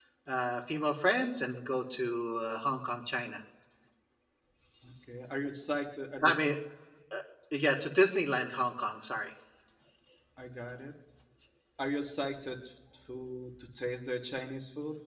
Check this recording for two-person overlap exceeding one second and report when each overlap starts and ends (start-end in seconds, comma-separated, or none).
none